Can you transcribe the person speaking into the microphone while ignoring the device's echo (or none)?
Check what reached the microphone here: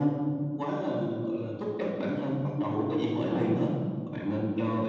none